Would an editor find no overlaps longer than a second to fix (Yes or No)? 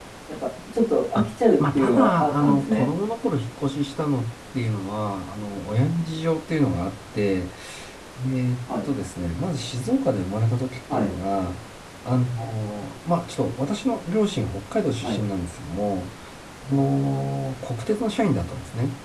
No